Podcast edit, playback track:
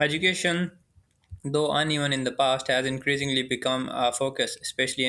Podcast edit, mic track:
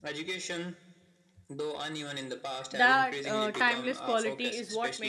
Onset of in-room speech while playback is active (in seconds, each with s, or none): 2.7 s